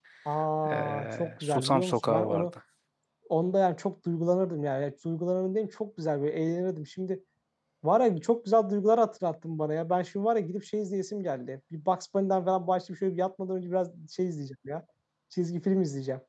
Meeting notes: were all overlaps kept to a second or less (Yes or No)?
No